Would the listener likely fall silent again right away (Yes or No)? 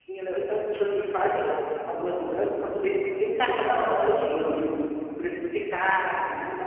Yes